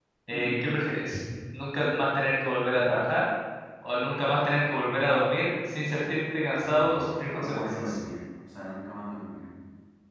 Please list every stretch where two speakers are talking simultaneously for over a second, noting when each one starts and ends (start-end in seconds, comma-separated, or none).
6.6-8.0